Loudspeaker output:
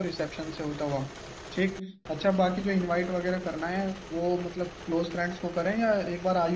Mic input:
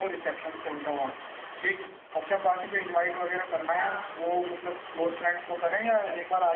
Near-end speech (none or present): present